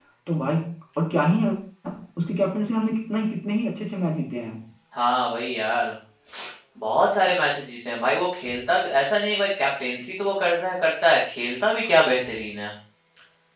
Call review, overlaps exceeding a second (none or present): none